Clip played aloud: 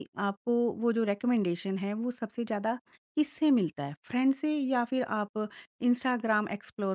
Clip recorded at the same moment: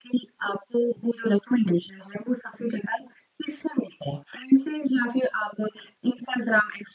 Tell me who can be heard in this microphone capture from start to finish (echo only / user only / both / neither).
echo only